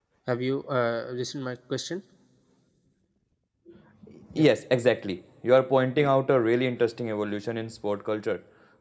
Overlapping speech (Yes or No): No